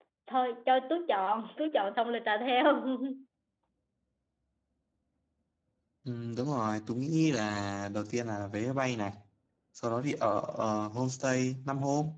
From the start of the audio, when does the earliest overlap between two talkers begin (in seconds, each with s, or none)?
none